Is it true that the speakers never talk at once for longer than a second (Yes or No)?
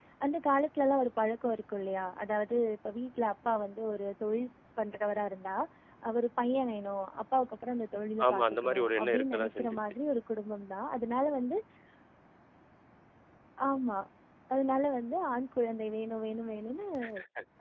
No